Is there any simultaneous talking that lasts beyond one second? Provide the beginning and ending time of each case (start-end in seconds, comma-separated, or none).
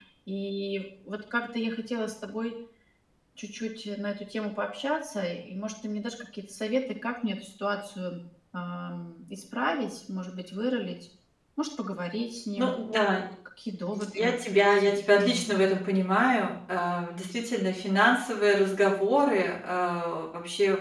14.2-15.4